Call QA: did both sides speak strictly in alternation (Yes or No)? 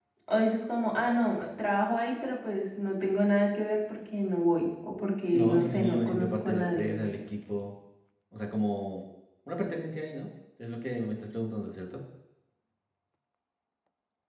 No